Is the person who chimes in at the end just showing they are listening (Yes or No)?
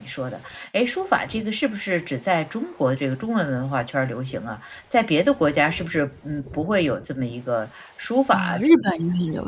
No